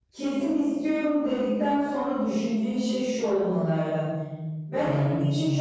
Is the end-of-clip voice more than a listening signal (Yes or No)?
No